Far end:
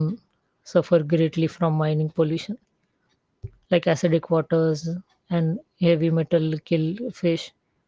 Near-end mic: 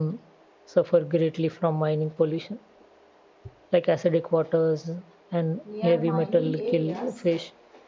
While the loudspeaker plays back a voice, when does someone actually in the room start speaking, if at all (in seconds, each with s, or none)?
5.6 s